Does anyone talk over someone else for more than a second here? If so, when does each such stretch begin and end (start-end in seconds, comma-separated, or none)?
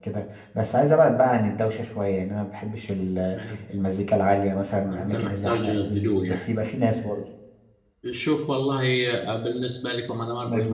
4.9-6.5